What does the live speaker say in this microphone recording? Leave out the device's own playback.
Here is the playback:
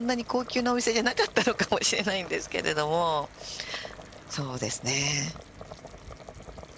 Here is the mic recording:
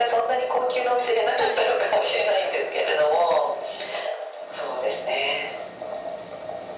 はい。

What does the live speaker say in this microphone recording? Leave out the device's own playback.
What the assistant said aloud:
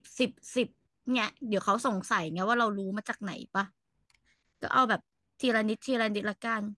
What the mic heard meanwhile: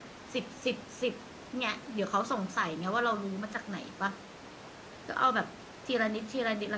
none

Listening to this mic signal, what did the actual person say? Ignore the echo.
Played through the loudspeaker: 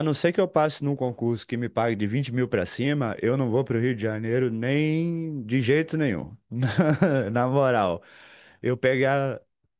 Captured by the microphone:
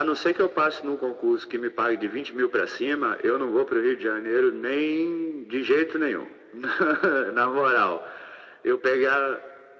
none

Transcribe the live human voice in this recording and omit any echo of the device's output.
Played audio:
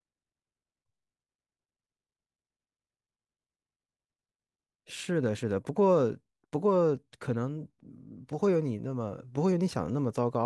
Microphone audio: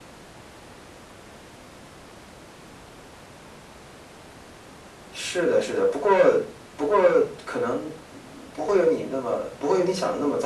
none

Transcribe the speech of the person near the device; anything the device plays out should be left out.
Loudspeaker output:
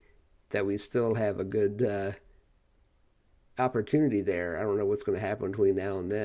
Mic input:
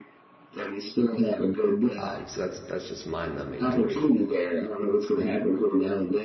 Um, so that's that's just mind-numbing to me.

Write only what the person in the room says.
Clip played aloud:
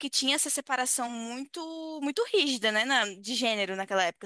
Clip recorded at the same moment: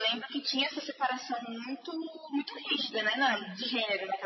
Uhum.

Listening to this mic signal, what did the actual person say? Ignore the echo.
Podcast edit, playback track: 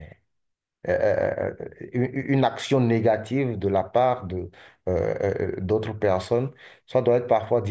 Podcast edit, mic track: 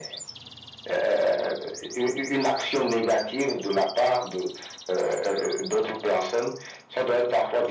none

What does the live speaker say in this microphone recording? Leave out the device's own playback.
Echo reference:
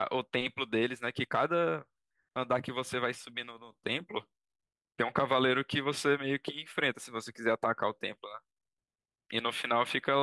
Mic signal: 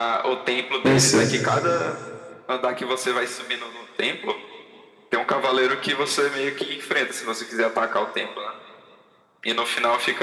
conhecer.

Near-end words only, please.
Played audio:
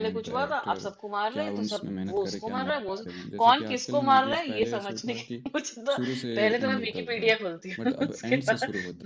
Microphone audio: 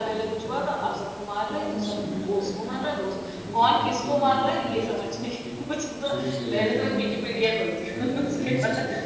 none

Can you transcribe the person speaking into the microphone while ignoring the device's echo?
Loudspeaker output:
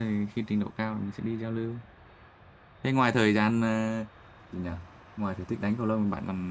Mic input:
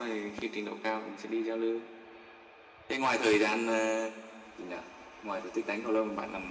none

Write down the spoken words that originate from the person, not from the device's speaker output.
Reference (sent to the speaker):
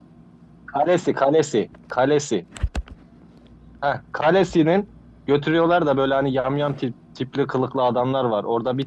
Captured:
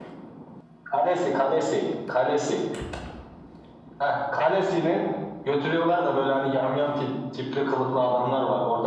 none

